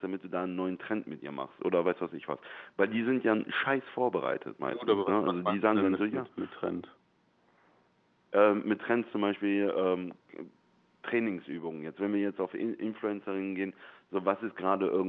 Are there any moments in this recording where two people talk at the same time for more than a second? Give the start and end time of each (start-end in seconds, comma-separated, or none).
4.7-6.2